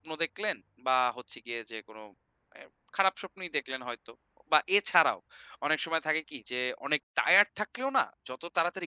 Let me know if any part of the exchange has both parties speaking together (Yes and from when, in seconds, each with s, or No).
No